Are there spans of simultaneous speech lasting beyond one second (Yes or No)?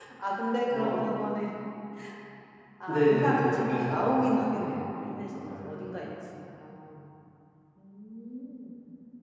Yes